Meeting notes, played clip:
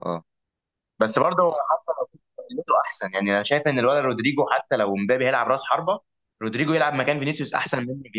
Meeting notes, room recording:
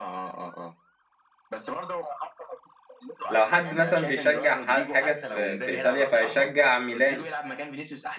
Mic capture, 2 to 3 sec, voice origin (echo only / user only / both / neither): echo only